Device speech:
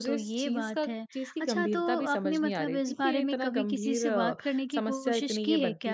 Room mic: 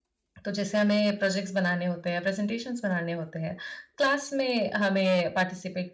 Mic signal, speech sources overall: user only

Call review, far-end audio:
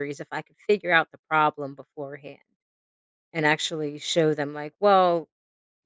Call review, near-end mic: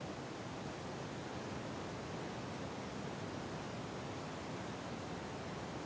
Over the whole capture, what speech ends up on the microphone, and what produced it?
neither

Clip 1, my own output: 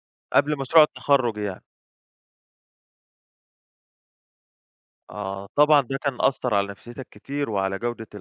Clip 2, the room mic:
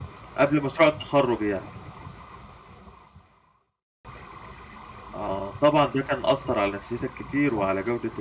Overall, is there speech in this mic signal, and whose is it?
echo only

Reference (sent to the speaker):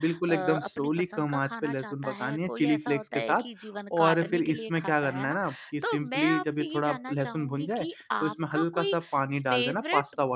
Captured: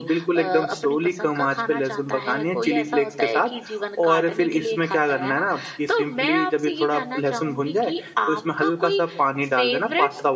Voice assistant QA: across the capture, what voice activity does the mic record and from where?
echo only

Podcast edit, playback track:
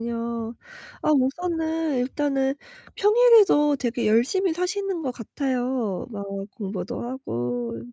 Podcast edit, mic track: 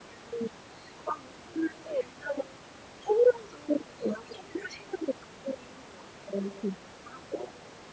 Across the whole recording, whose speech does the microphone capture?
echo only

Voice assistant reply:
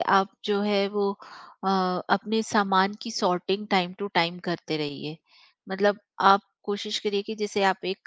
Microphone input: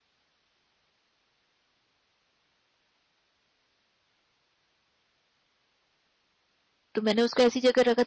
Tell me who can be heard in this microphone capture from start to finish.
user only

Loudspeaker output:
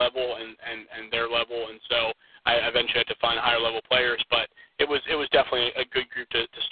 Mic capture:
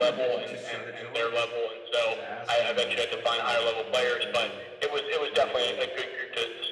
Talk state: both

